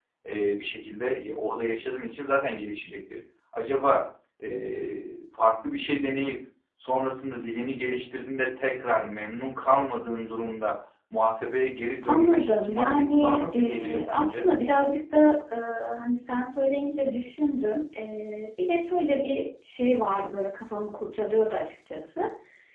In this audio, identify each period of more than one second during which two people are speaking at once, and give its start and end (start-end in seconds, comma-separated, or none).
12.0-14.5